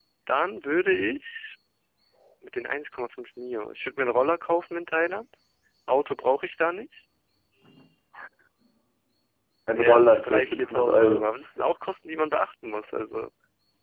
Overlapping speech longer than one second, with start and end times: 9.7-11.3

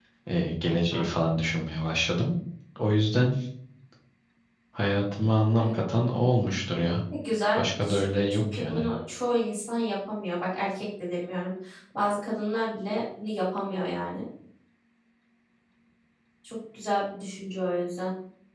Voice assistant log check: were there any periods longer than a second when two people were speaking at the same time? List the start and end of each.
7.6-8.8

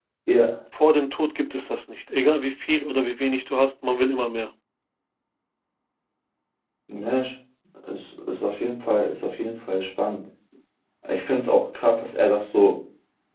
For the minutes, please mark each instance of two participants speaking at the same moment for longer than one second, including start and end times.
none

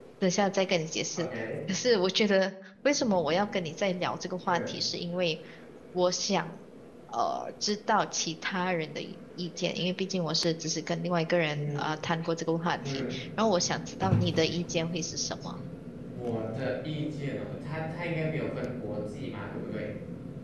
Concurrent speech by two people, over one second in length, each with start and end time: none

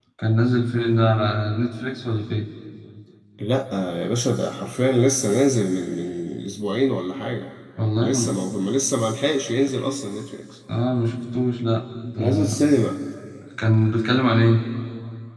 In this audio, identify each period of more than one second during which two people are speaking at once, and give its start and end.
none

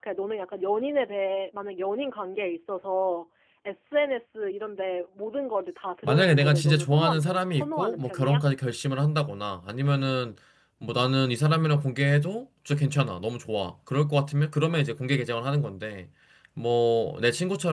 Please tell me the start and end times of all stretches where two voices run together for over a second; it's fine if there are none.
6.0-8.4

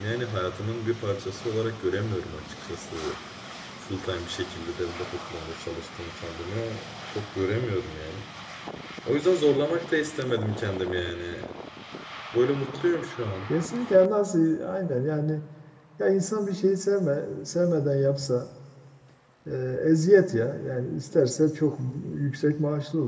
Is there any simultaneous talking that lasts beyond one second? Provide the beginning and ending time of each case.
none

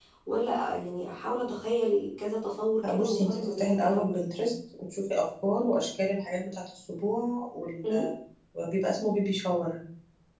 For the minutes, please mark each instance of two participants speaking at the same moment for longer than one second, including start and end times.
2.8-4.2

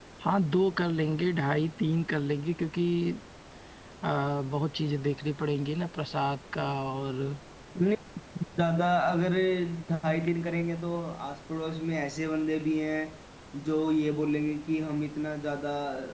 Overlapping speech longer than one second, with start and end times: none

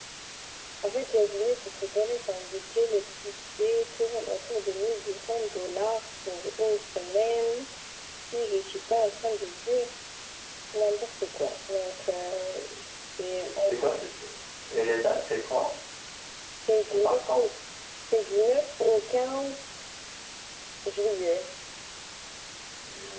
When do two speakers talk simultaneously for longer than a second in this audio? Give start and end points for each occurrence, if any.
none

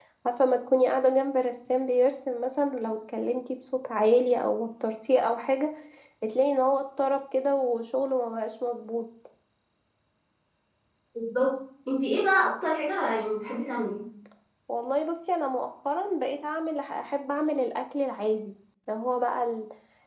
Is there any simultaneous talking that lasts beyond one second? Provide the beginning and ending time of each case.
none

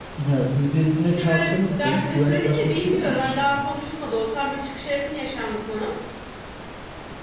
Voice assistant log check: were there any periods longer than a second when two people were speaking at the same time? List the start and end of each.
1.0-3.5

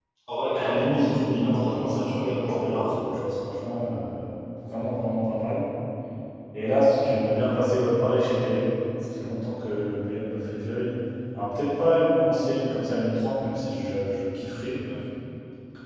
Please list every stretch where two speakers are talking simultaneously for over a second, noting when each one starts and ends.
0.6-2.7

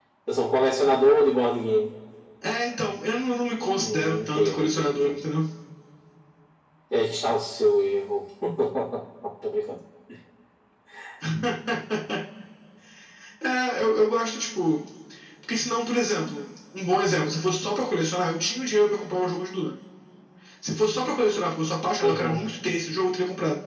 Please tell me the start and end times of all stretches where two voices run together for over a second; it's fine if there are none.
3.8-5.2

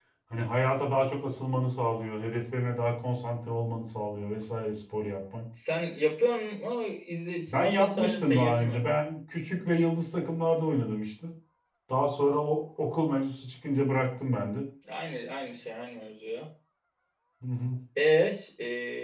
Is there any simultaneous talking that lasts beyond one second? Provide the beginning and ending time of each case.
7.5-8.8

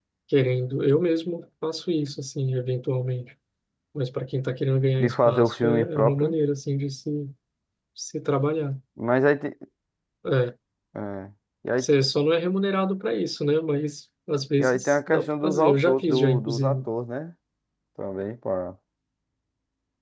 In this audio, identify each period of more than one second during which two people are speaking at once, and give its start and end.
5.0-6.3, 14.6-16.8

